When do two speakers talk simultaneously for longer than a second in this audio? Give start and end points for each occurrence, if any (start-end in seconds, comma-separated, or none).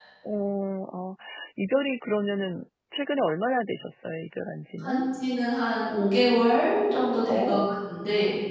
none